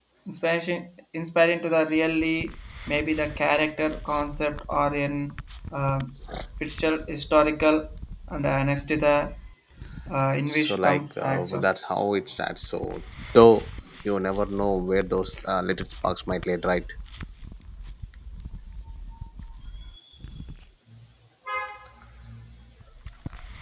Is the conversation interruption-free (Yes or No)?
No